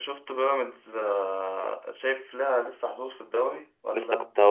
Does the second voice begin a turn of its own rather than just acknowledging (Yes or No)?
Yes